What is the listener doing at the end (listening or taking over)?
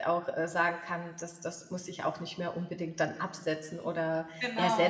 taking over